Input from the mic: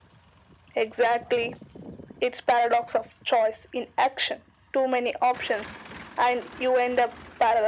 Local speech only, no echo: none

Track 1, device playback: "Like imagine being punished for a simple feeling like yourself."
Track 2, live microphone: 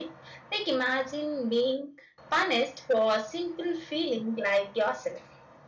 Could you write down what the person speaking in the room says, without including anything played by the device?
none

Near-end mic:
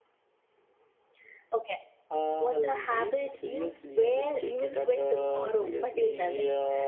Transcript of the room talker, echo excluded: none

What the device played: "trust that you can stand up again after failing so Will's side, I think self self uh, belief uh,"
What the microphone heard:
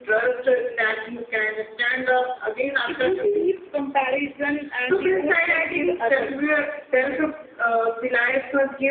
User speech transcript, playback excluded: if you keep comparison and yourself with others

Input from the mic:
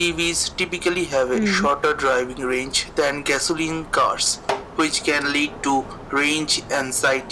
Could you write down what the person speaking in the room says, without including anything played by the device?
hmm.

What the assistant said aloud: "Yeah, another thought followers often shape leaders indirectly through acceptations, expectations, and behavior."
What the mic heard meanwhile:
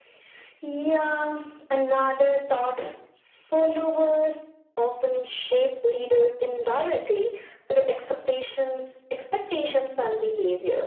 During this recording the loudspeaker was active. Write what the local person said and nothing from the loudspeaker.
none

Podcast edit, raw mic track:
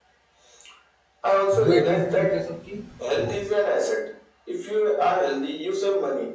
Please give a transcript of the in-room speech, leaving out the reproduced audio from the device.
Do I drink 2 liters of tea? No.

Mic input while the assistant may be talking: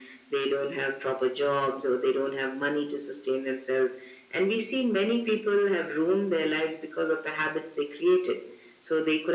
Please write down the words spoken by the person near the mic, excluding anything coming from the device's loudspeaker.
none

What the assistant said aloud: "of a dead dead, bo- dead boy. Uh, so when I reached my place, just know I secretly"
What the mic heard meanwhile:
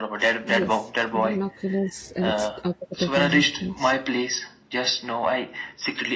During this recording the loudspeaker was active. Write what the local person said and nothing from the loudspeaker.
Yes, Binoculars, uh, it's opposite of binoculars.

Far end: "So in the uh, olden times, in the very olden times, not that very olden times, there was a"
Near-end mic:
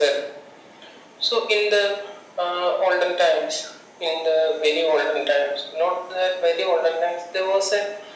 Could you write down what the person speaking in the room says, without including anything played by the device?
none

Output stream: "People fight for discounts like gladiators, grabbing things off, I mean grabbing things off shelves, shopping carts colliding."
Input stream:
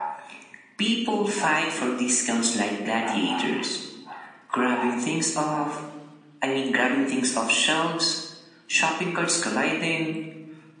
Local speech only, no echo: none

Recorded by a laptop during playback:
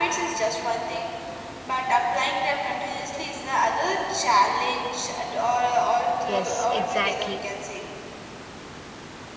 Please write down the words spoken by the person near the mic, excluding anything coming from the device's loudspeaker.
Yes, exactly.

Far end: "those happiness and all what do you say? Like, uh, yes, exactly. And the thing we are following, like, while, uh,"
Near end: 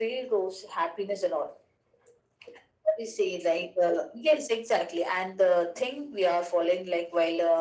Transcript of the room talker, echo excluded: none

